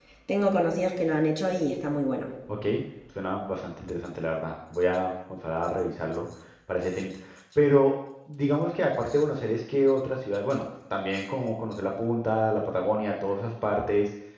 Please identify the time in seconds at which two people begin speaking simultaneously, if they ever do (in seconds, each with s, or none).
none